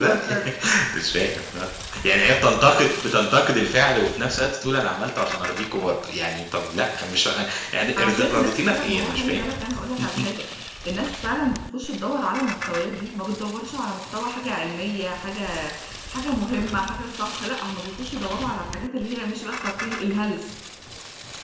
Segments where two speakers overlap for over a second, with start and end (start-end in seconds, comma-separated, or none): 8.0-9.4